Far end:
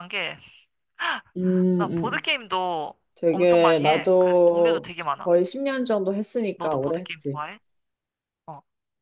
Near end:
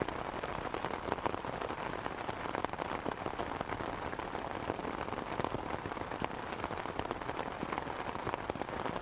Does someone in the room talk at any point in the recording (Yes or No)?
No